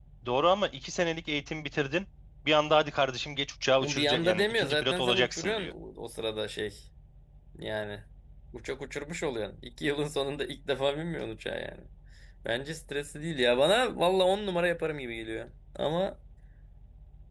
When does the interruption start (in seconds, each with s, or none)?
3.8 s